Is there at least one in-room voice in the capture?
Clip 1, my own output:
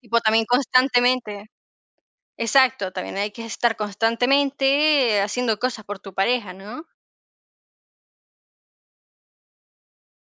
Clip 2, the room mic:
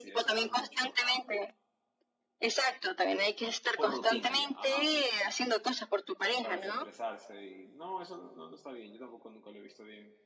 Yes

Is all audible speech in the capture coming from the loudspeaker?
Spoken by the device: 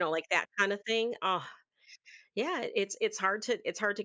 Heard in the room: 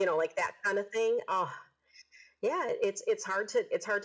Yes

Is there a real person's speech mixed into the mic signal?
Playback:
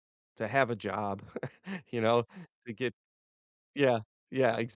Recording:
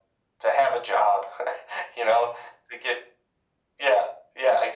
No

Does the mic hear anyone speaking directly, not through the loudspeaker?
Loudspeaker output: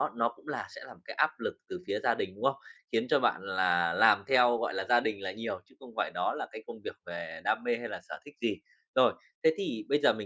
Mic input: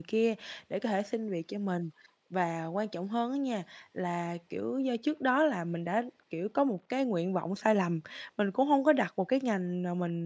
Yes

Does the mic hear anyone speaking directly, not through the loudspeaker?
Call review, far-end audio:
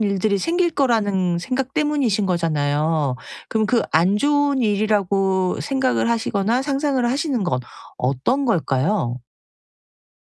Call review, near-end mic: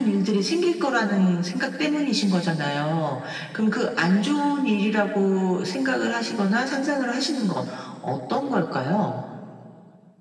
No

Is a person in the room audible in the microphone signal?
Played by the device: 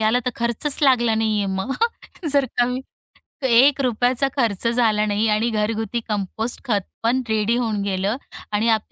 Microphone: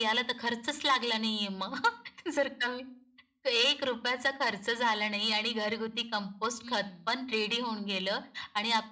Yes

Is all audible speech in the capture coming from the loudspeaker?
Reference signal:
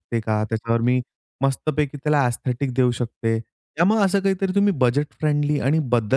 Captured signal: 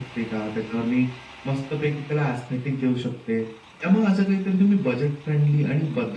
Yes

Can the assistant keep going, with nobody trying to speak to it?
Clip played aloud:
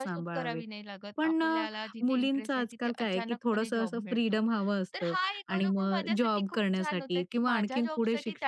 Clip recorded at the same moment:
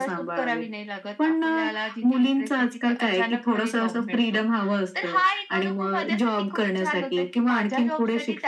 Yes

